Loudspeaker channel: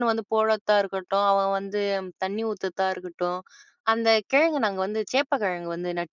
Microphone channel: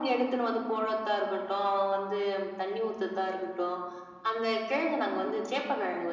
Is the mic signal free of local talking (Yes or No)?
Yes